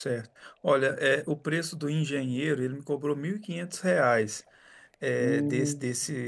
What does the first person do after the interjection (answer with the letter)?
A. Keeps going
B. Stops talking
A